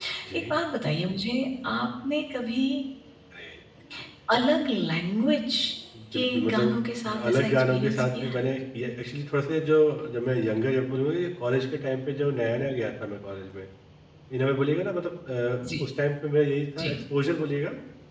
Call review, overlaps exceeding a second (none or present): present